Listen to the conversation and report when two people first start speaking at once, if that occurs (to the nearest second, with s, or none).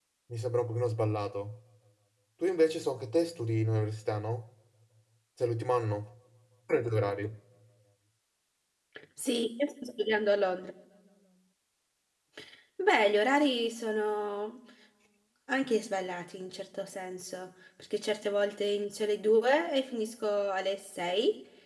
none